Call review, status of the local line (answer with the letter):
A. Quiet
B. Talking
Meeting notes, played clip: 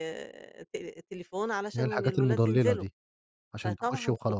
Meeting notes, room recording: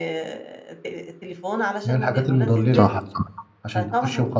B